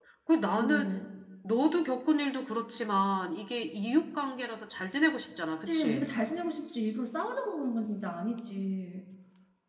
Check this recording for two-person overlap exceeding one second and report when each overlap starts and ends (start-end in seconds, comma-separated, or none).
none